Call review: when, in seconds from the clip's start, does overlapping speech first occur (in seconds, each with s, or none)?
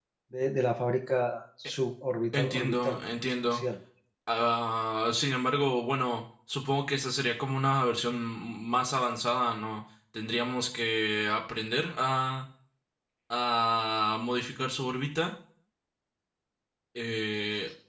2.3 s